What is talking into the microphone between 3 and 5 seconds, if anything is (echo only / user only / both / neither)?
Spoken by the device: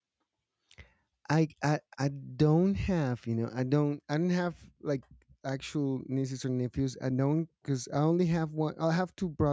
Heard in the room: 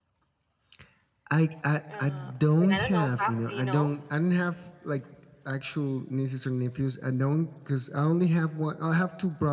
both